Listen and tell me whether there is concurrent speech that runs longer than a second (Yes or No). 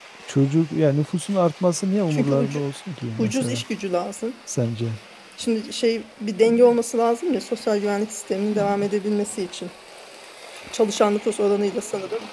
No